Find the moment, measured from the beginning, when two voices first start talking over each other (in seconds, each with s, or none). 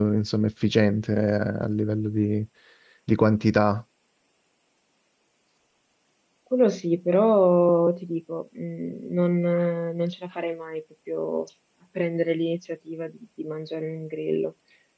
none